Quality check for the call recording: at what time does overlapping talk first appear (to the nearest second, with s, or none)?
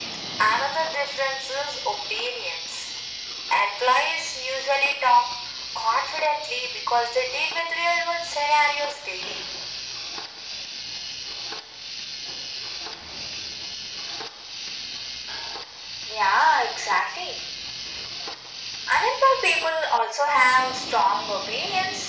none